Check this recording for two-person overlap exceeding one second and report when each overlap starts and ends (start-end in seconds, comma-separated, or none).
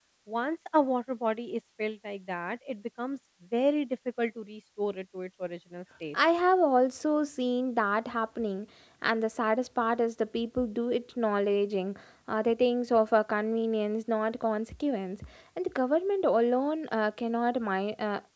none